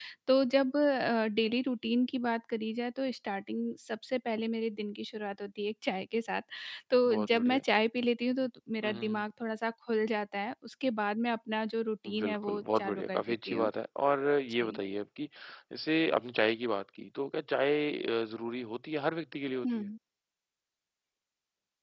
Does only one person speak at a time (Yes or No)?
No